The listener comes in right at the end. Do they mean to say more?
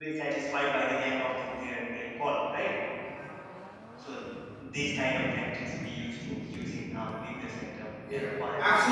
Yes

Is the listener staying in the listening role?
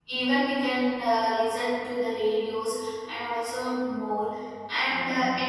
Yes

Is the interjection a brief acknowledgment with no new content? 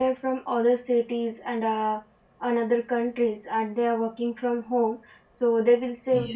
Yes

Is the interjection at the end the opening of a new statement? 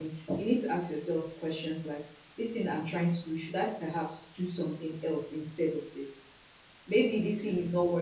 No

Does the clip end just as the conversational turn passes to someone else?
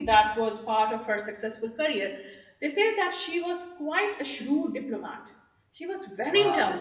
Yes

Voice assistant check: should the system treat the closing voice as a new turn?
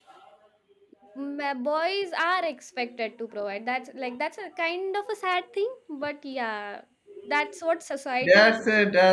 Yes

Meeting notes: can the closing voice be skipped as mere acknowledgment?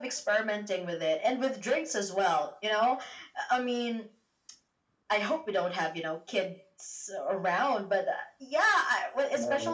Yes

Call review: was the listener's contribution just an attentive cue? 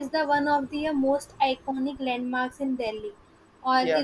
Yes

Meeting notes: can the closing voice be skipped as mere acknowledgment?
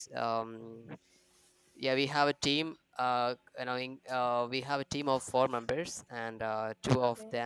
Yes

